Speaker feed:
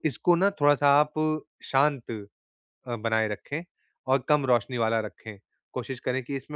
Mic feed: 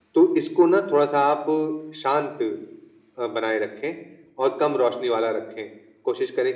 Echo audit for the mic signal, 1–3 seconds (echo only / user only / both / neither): echo only